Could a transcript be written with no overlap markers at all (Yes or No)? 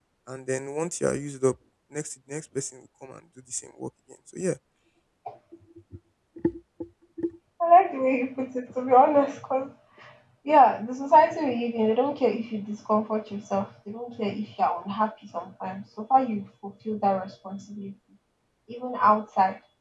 Yes